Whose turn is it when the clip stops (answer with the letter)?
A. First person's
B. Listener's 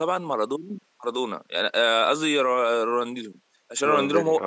A